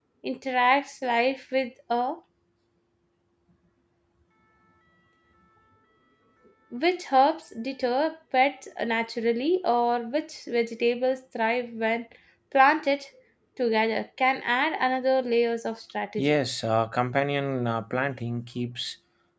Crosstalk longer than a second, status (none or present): none